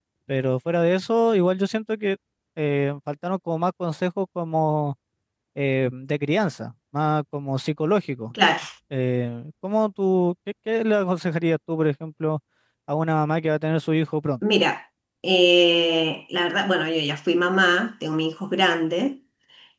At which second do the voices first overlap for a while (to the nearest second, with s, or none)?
none